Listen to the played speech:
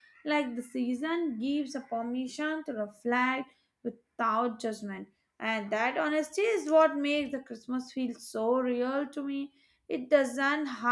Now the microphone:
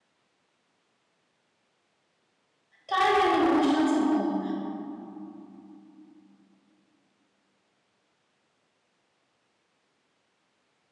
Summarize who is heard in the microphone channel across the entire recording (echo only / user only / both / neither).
user only